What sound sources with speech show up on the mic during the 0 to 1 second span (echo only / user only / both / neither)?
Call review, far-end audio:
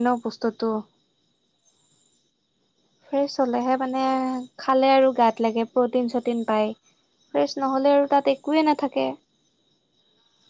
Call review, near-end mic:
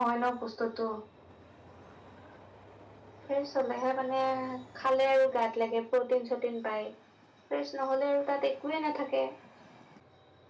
echo only